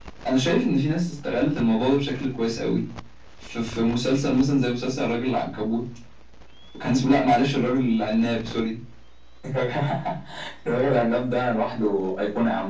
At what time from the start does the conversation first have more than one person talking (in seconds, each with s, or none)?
none